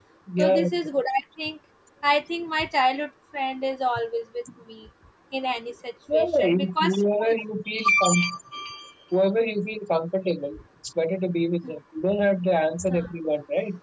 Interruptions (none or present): present